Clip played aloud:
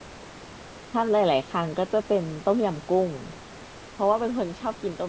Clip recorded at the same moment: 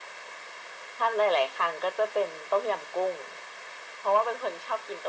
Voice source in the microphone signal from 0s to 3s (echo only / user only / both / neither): echo only